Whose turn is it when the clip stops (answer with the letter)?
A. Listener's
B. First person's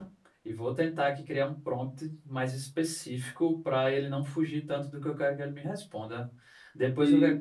B